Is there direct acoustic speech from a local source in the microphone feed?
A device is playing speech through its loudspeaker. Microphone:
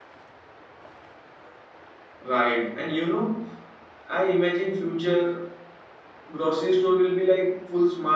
No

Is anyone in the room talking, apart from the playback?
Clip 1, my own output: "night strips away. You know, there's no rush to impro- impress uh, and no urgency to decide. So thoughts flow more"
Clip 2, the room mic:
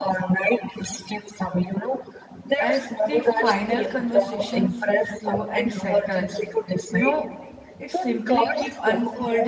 Yes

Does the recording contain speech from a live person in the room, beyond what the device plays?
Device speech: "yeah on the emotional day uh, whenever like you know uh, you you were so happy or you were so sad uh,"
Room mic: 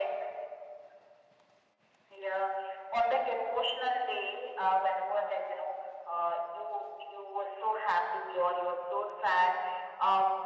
No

